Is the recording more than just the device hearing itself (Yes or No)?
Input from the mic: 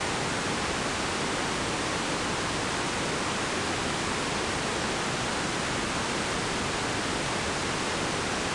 No